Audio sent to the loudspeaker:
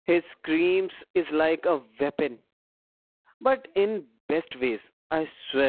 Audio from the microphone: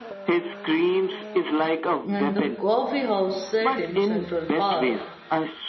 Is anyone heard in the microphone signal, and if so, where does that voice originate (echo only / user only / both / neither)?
both